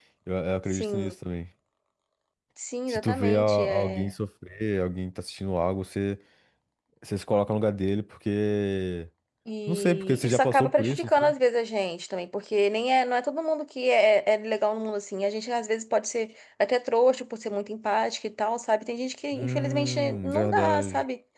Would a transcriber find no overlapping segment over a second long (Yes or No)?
No